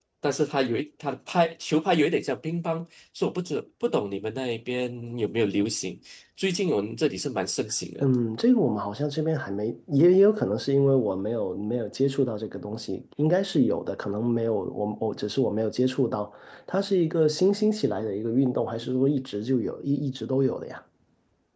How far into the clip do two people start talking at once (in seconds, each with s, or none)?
none